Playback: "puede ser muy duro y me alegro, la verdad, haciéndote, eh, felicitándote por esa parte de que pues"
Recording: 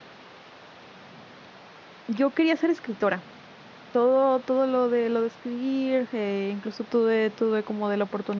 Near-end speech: present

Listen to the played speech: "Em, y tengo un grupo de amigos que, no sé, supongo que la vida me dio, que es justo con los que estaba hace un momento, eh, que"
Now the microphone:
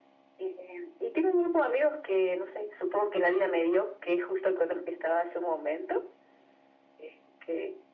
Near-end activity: none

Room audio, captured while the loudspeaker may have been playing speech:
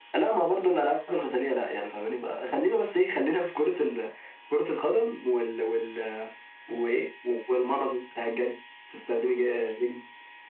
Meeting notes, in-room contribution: none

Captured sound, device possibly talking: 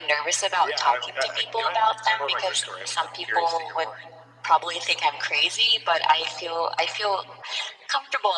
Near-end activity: none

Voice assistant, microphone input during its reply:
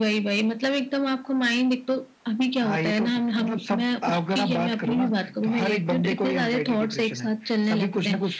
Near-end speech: none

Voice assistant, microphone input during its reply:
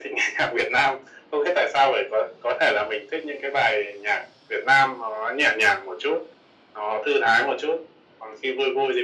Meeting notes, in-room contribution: none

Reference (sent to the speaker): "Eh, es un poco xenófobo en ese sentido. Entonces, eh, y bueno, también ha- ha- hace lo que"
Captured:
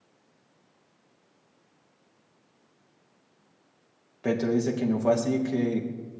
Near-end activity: present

